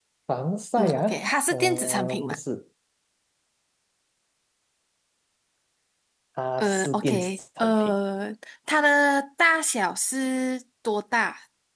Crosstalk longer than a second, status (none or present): present